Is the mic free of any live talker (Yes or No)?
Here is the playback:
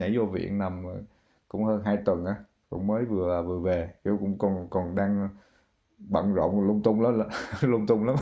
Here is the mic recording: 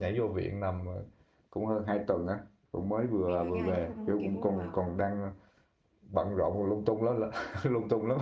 No